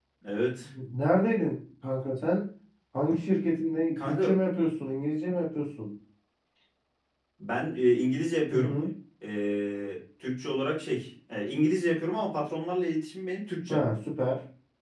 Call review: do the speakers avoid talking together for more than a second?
Yes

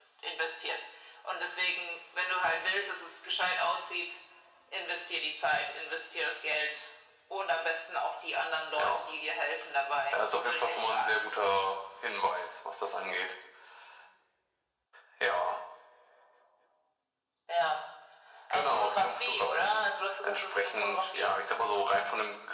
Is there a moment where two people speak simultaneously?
Yes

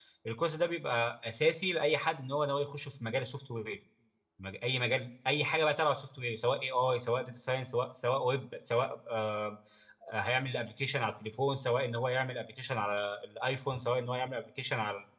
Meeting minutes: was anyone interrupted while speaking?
No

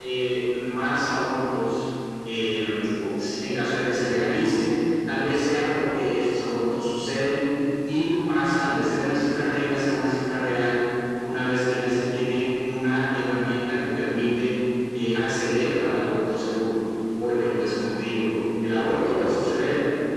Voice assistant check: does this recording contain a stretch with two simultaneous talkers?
No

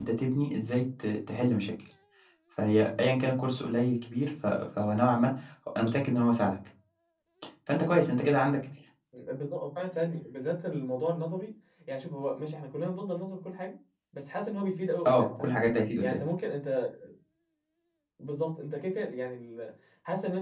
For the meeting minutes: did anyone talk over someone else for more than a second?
No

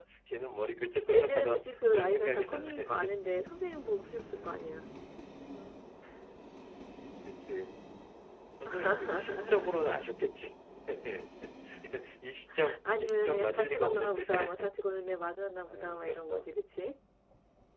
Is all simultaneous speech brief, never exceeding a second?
No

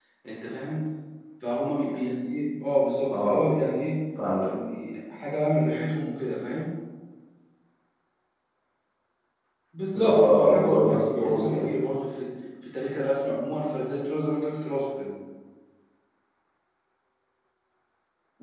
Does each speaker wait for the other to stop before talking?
No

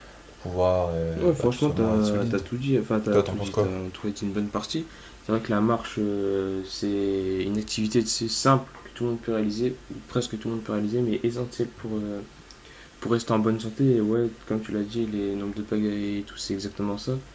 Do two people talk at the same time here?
Yes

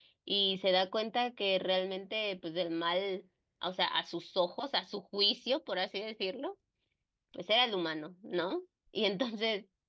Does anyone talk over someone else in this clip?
No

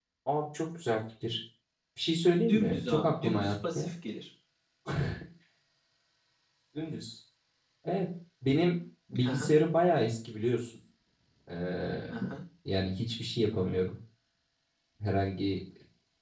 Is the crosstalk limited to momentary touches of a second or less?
No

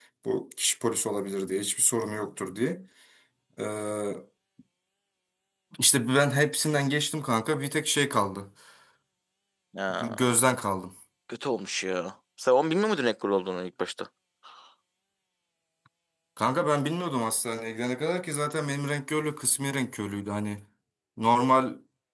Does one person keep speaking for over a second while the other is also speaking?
No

